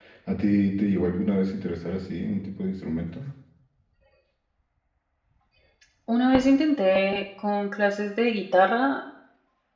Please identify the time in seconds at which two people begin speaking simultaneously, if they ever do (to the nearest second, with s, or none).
none